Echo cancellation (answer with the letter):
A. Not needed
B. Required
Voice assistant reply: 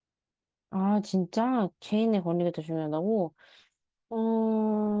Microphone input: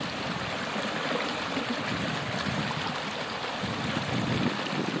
A